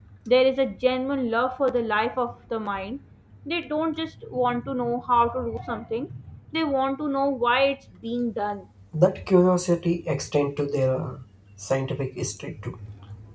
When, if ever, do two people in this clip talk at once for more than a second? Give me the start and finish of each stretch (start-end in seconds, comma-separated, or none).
none